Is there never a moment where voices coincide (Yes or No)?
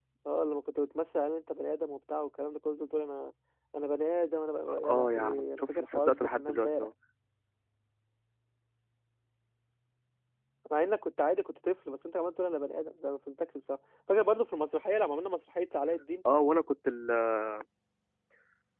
No